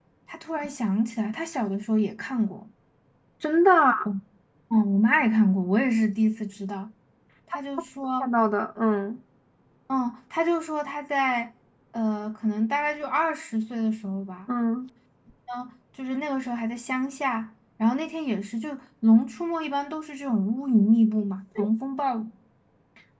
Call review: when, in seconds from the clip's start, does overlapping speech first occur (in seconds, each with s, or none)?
none